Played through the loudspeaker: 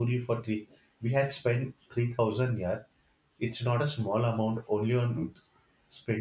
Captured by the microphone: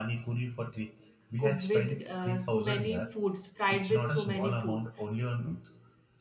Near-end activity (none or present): present